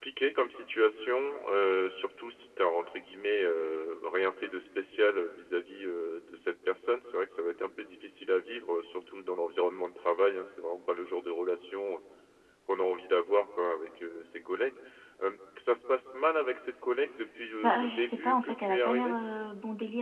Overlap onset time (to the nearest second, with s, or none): 18 s